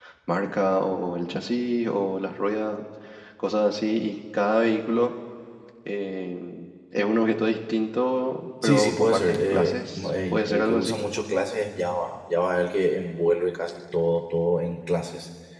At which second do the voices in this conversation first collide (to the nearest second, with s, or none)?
9 s